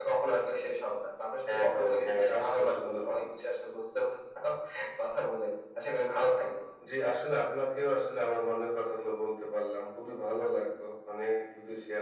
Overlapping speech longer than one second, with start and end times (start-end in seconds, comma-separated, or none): 1.6-3.2